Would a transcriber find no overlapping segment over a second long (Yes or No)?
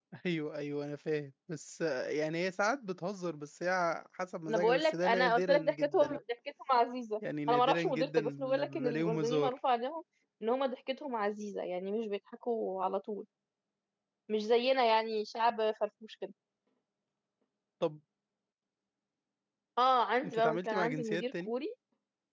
No